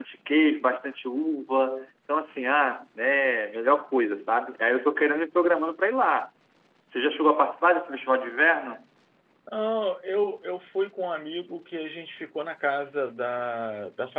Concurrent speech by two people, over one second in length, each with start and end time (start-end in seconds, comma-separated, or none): none